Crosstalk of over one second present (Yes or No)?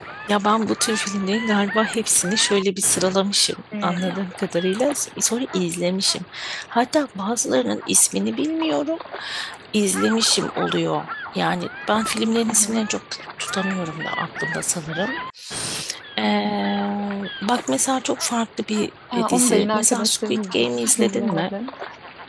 Yes